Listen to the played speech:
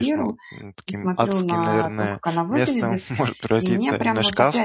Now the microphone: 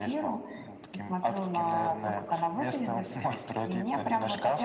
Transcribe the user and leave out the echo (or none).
none